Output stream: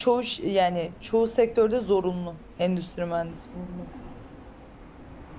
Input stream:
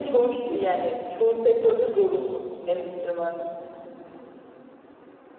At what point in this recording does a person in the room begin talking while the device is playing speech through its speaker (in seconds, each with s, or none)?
none